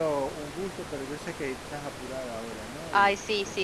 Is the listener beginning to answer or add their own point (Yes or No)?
Yes